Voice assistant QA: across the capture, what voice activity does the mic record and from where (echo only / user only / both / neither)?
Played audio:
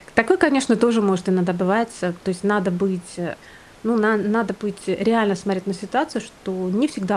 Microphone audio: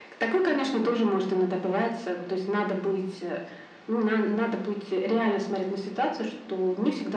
echo only